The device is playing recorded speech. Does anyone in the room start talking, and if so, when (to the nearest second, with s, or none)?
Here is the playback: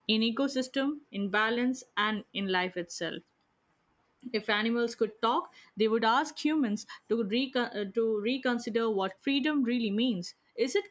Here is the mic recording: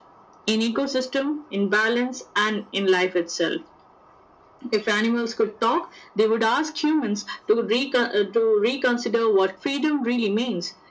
none